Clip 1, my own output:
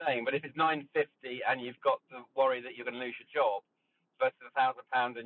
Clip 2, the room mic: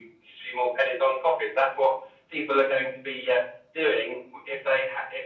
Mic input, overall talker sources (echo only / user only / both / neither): user only